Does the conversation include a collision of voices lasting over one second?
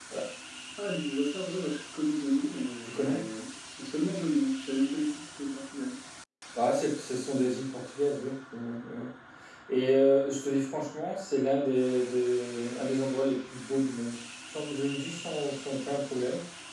No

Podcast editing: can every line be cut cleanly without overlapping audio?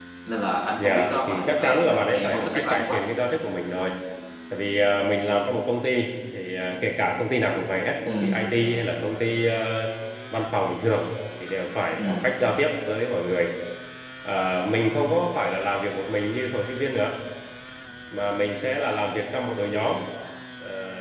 No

